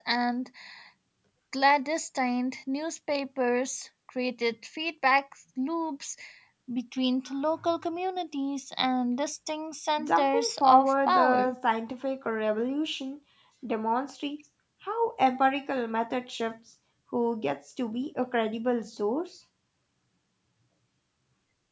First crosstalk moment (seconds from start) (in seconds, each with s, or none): 10.0 s